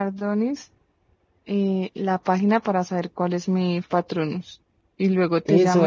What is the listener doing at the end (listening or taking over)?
taking over